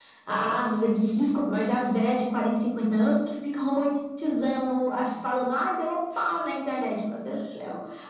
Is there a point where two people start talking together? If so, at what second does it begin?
none

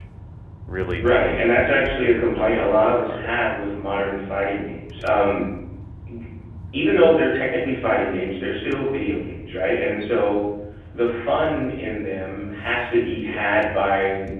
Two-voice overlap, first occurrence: 1 s

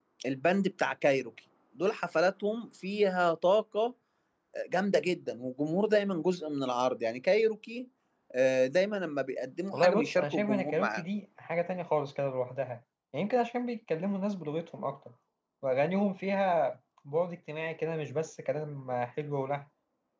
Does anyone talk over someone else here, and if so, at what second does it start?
10 s

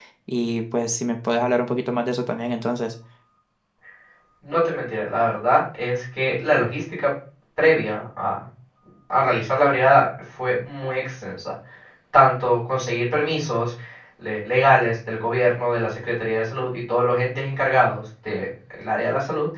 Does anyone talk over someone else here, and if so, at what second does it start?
none

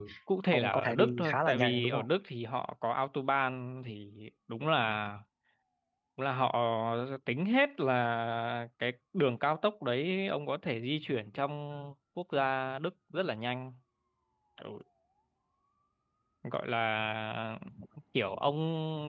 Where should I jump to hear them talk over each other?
1 s

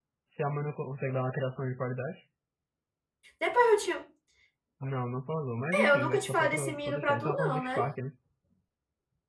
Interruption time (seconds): 6 s

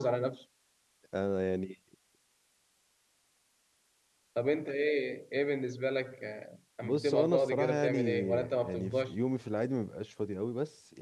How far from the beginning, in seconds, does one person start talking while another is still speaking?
7 s

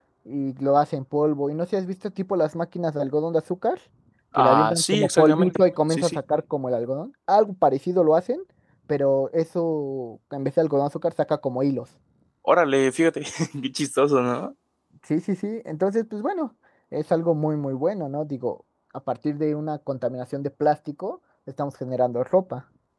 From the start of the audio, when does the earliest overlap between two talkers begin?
4 s

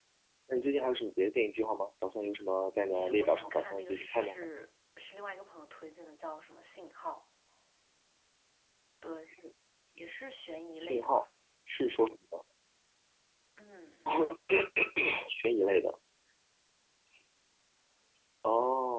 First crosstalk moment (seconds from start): 3 s

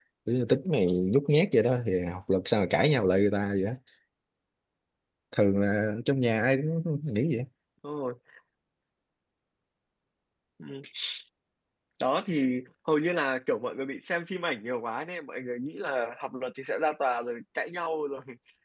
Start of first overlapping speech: none

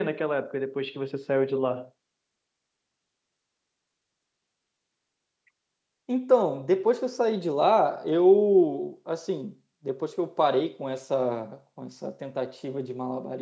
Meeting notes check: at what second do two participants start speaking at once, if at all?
none

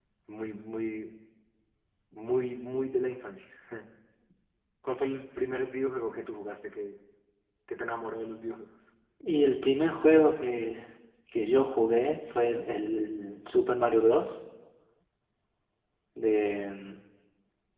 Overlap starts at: none

